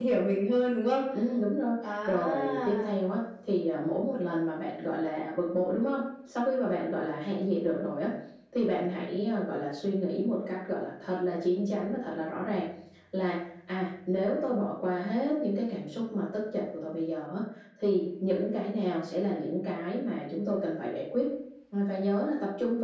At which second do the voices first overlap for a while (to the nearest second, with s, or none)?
2 s